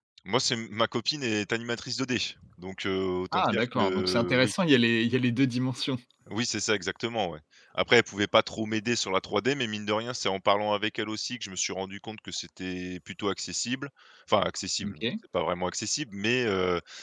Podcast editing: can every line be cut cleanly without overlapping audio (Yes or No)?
No